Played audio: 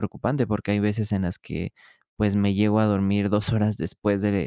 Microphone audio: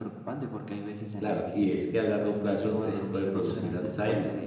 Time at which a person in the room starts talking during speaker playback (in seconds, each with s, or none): 1.2 s